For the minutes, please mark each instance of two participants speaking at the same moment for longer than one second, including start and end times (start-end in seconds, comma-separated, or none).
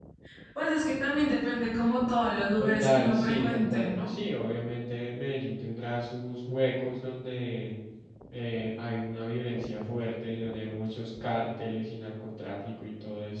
2.6-4.1